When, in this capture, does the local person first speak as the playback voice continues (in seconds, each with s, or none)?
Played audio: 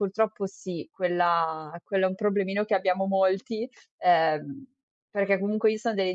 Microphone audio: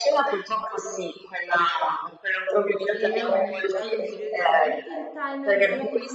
2.9 s